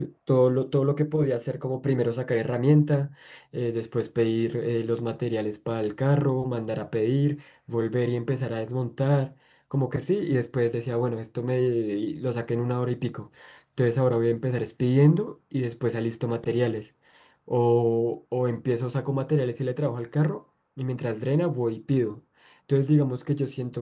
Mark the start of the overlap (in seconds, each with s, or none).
none